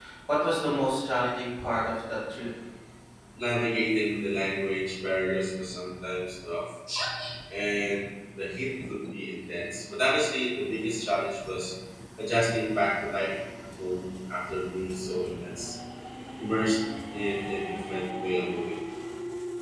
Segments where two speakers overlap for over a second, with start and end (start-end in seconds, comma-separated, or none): none